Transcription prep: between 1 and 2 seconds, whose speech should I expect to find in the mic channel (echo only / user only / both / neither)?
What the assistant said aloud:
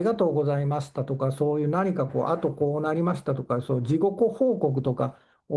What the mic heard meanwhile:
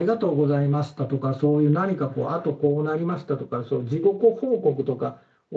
echo only